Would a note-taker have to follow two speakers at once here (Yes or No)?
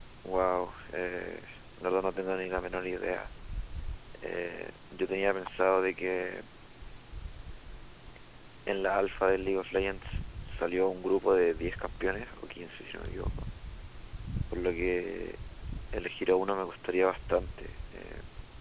No